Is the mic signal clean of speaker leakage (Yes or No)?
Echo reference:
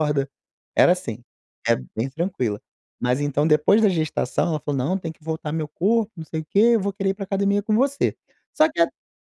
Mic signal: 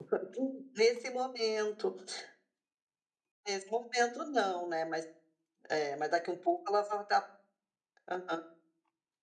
Yes